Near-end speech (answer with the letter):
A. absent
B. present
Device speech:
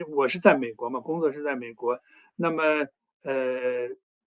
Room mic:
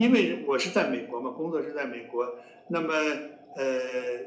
A